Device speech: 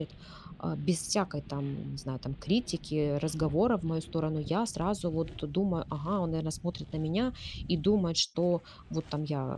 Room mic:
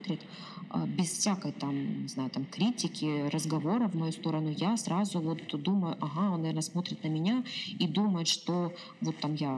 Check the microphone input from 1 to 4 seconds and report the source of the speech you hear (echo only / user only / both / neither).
echo only